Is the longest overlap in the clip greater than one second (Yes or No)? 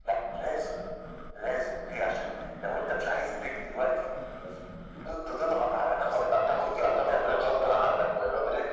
Yes